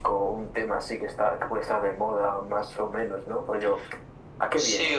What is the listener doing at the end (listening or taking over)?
taking over